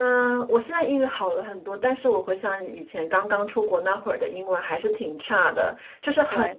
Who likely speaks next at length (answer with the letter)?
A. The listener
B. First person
B